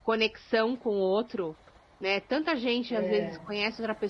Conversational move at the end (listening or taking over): listening